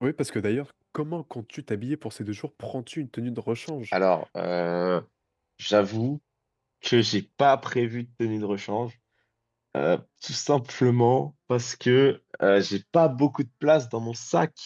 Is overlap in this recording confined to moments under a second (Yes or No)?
Yes